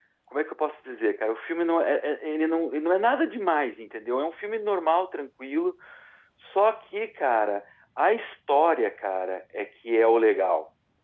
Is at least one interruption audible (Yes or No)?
No